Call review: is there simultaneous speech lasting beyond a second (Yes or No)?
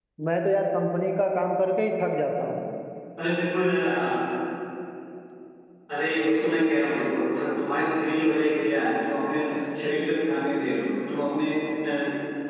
No